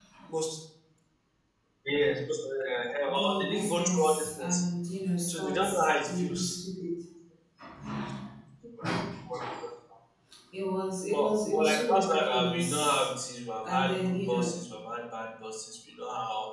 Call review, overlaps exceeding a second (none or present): present